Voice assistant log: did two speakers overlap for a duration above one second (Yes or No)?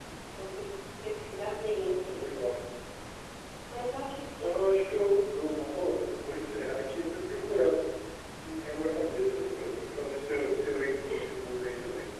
No